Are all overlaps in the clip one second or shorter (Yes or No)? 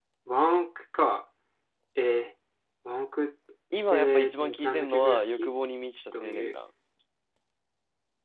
No